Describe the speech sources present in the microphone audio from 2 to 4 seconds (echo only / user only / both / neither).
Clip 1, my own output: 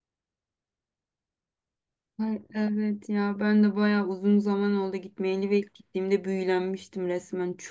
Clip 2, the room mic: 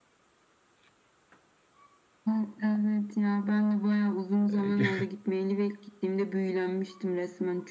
echo only